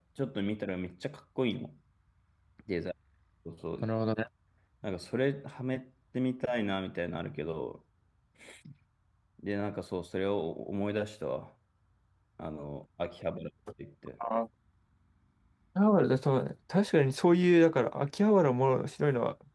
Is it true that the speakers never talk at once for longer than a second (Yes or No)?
Yes